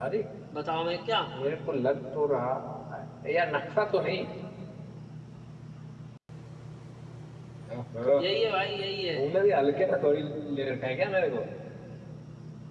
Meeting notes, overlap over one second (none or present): none